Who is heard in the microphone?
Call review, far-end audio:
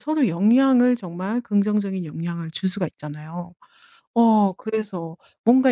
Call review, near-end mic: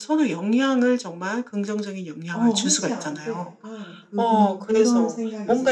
both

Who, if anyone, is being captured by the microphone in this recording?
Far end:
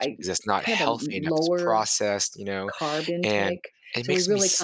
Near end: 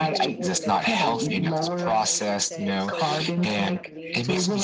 both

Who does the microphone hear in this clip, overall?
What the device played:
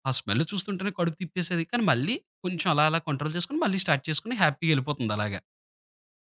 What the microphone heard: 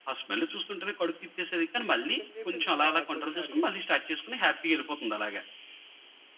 both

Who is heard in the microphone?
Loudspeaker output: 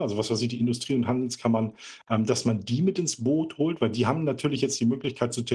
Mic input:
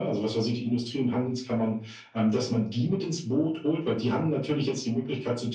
echo only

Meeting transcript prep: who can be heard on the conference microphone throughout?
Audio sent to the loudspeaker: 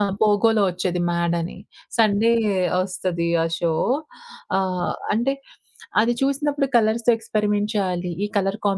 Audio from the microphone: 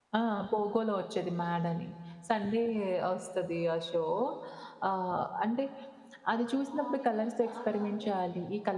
both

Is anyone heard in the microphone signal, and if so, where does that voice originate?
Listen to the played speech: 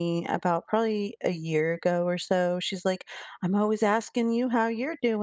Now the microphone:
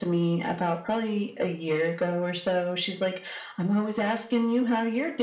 echo only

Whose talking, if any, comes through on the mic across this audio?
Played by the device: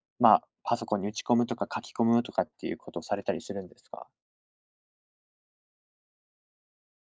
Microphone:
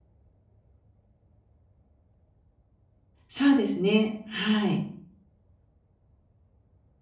user only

